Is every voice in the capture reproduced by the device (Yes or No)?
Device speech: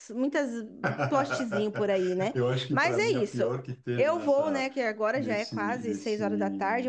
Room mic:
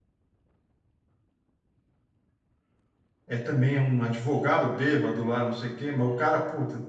No